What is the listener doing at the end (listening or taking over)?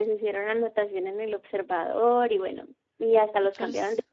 listening